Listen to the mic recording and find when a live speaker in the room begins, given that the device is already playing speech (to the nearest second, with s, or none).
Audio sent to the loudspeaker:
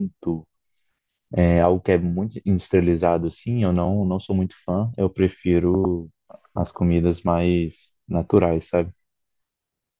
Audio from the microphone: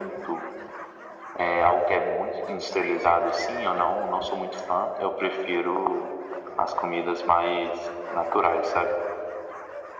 none